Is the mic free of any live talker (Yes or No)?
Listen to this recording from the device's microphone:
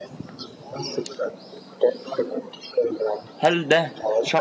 No